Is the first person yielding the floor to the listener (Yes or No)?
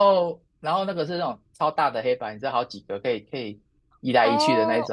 Yes